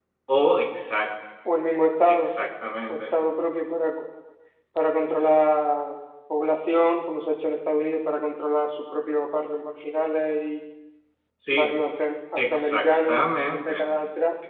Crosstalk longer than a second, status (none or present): present